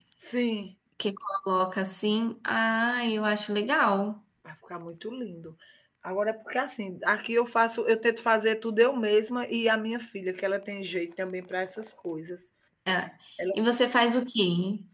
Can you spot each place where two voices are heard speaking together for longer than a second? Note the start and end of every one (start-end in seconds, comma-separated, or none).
none